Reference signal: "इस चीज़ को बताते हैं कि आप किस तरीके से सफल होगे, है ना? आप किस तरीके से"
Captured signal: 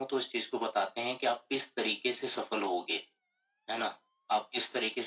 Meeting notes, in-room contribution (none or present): none